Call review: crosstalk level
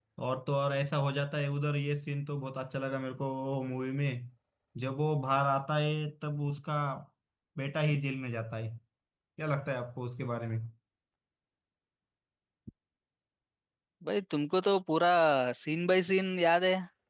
none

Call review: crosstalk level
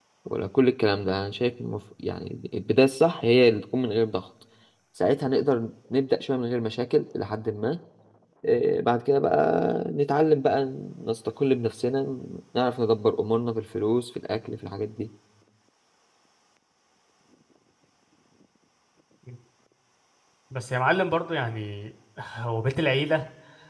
none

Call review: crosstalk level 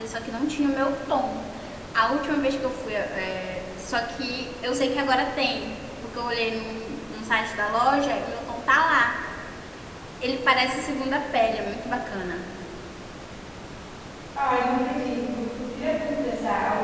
none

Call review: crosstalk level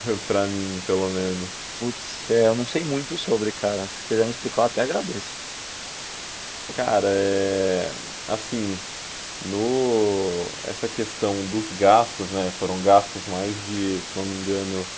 none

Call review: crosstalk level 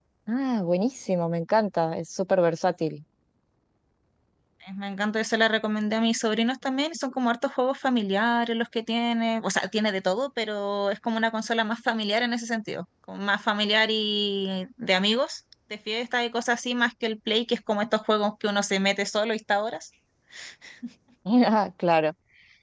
none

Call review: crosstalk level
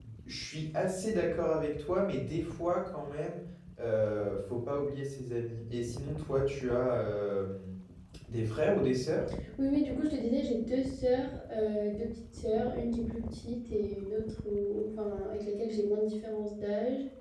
none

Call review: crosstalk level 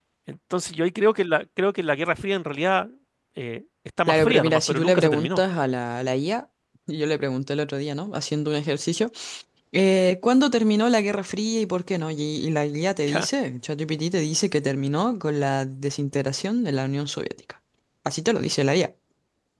present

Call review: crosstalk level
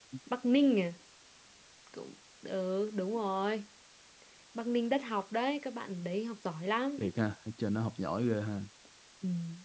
none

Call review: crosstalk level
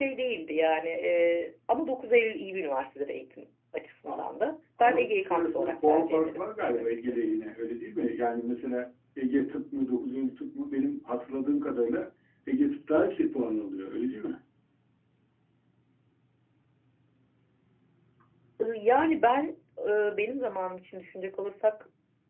present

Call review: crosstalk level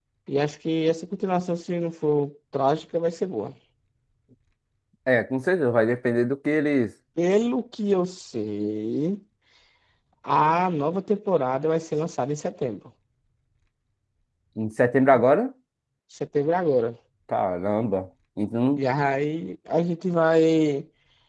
none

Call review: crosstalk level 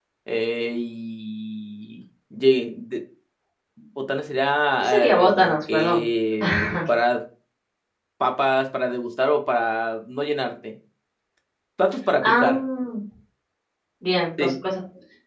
present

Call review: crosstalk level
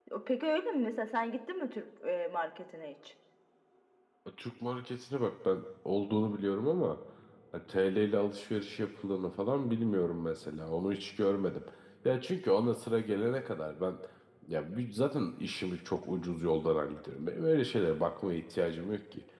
none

